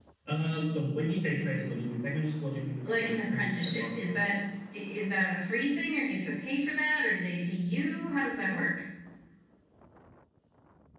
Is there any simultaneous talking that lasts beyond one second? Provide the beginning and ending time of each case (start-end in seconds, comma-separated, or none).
2.8-4.3